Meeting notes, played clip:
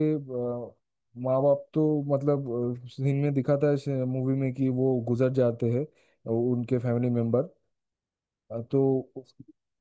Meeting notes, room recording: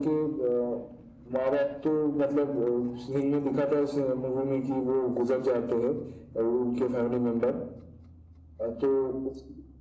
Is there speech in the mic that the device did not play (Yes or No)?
No